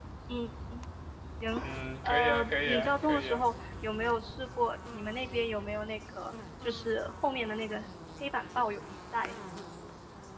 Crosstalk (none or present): present